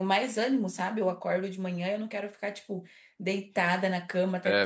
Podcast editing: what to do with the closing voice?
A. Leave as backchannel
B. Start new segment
A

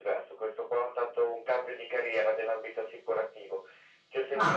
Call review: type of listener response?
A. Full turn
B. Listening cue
B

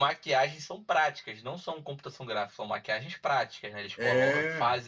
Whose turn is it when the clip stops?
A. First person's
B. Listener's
A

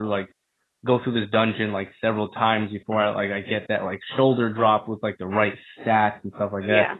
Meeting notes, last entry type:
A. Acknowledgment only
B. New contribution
A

